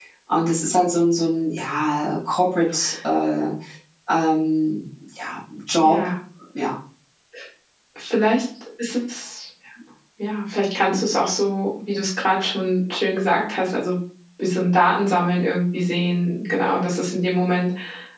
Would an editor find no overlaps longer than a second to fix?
Yes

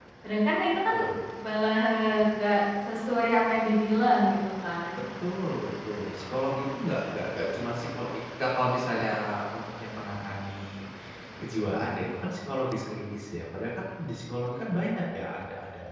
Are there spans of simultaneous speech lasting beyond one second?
No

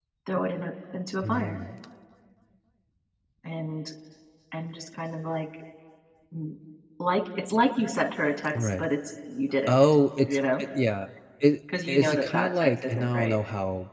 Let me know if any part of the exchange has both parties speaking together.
Yes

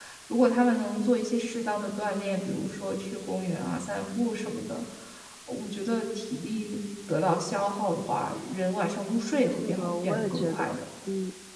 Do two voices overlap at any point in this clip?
Yes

